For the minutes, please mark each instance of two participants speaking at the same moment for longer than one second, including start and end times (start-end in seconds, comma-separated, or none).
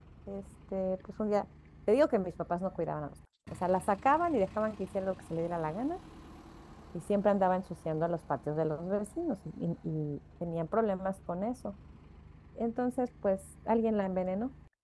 none